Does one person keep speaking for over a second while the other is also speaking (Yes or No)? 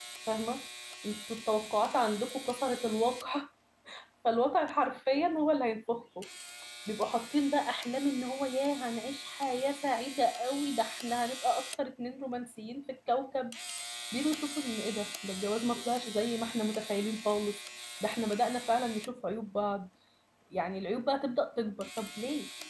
No